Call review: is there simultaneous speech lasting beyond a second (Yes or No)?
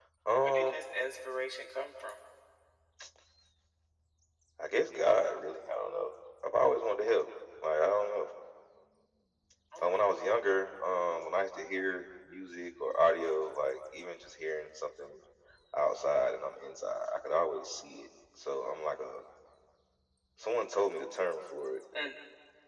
No